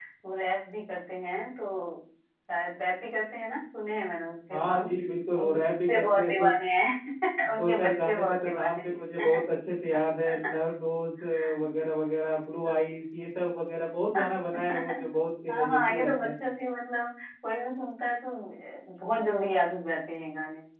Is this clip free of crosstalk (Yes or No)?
No